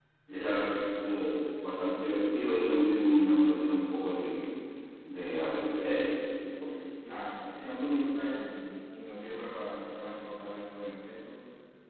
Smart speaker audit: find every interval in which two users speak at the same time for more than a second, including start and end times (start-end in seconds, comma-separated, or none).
none